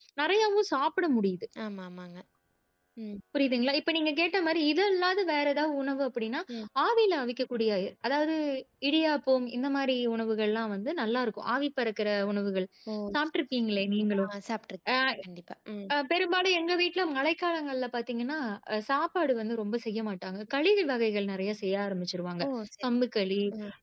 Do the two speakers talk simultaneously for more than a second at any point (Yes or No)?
No